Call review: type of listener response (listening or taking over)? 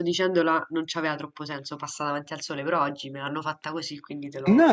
taking over